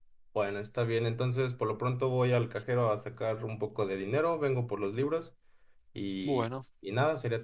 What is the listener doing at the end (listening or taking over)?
listening